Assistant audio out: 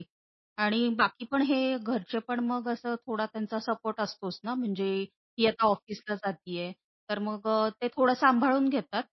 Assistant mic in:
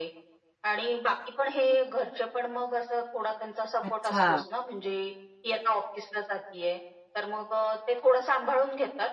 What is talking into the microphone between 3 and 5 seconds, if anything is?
both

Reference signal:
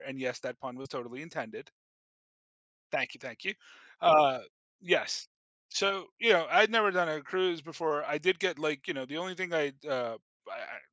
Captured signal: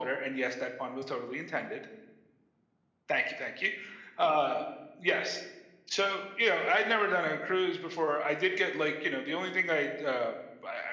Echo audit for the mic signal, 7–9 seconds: echo only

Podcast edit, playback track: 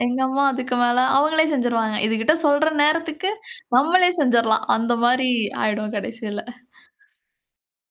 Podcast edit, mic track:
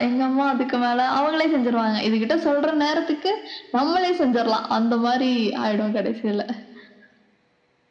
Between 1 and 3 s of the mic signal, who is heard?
echo only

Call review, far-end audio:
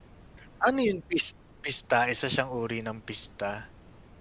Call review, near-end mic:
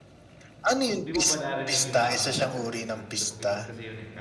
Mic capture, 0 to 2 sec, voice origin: both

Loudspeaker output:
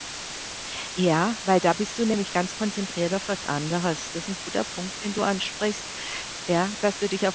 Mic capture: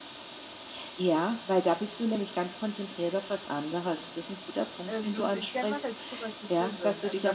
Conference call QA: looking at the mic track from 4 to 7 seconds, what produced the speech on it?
both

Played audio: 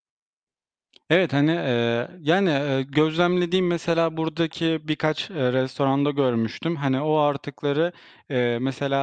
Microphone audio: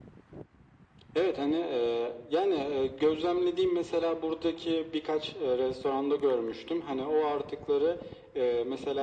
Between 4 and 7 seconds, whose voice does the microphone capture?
echo only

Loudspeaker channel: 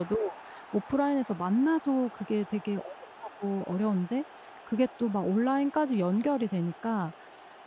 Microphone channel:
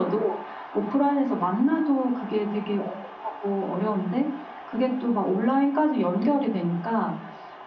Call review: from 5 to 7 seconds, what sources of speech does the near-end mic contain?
echo only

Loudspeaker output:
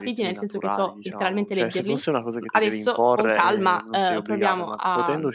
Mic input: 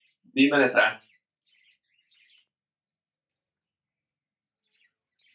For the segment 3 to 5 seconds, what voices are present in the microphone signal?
neither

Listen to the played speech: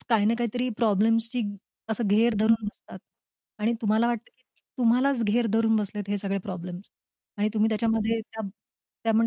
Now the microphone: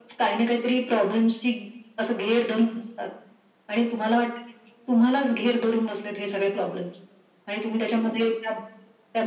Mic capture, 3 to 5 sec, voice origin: echo only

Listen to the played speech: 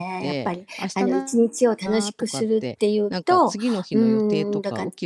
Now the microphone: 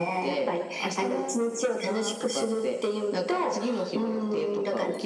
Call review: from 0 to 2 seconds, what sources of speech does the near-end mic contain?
echo only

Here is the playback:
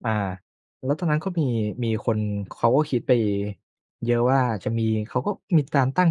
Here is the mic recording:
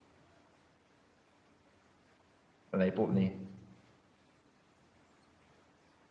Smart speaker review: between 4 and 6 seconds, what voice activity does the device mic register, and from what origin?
neither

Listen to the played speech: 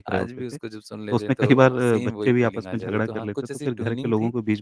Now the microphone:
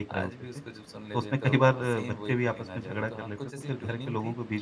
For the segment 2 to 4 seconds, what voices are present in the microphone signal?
echo only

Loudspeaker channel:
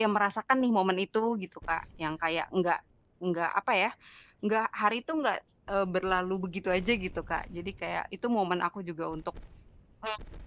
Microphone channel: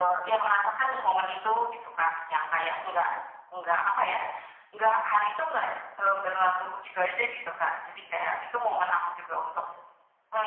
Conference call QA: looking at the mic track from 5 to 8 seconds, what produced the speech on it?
echo only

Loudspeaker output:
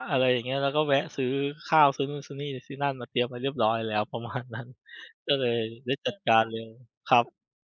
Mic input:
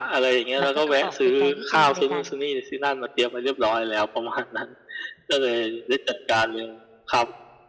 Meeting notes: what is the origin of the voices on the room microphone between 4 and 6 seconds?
echo only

